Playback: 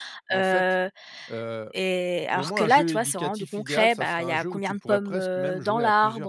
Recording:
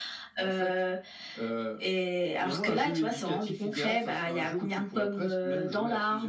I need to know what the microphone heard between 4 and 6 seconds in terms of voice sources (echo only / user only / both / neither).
echo only